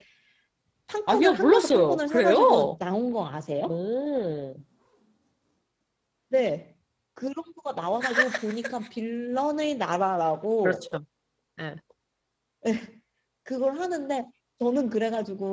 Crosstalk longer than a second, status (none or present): present